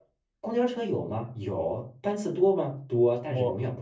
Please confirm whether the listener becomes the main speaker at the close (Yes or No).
No